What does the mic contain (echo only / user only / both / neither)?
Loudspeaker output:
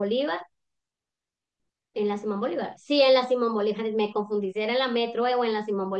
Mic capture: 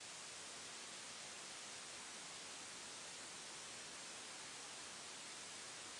neither